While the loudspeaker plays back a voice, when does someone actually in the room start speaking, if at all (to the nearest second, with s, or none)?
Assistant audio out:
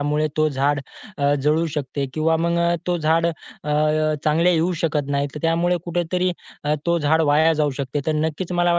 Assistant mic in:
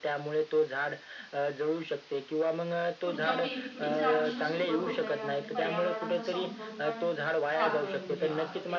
3 s